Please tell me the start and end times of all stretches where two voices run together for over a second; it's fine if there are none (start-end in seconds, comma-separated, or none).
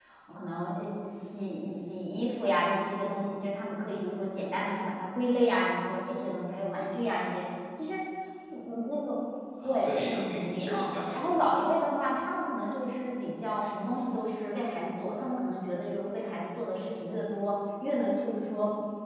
9.6-11.4